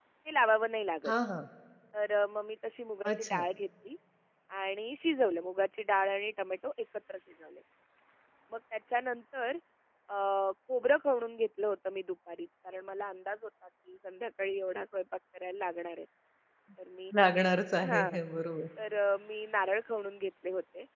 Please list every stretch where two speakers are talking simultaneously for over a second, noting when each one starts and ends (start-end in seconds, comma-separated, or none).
none